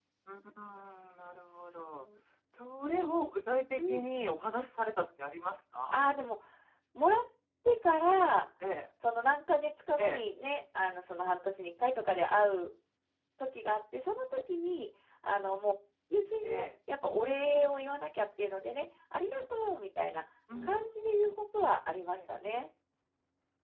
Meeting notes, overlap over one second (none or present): none